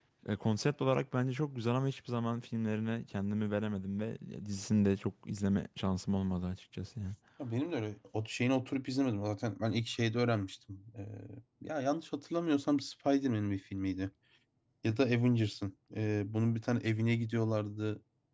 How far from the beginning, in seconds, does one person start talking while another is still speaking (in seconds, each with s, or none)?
none